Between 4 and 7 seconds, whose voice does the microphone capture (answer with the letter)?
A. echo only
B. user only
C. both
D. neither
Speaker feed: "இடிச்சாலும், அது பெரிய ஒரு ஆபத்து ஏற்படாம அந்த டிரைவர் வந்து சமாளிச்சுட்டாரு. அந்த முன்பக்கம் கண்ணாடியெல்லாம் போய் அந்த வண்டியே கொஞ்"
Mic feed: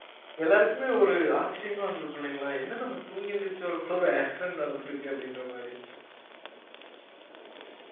B